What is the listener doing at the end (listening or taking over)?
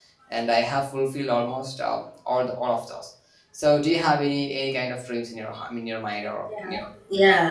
taking over